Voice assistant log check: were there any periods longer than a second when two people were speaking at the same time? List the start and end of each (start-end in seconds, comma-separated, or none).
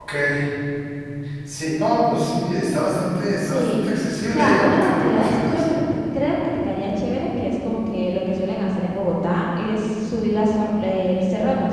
4.3-5.6